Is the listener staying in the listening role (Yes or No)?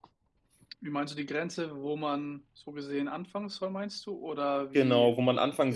No